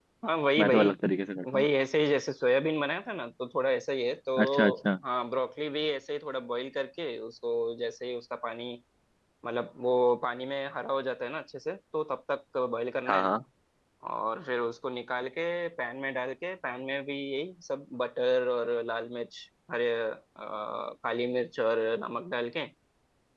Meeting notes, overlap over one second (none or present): none